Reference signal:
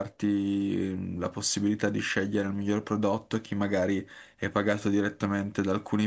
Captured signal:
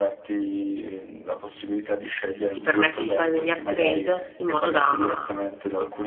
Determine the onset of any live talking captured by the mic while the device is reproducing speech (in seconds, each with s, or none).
2.5 s